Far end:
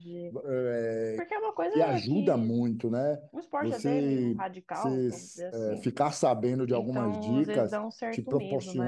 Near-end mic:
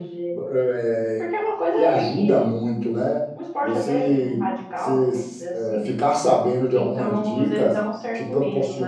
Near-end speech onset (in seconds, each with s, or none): none